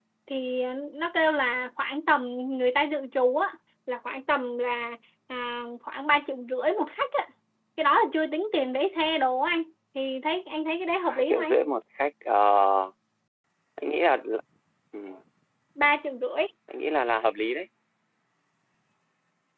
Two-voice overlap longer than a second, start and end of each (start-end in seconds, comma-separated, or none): none